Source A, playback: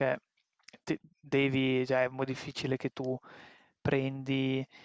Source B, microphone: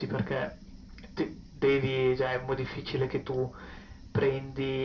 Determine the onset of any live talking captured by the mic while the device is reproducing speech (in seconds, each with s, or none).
none